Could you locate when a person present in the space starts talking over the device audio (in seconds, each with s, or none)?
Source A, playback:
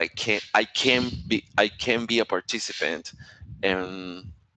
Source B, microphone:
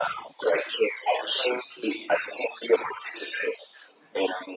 none